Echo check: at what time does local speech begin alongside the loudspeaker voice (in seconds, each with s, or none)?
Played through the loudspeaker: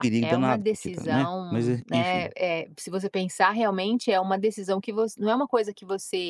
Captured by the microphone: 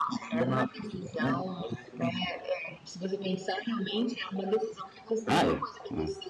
5.3 s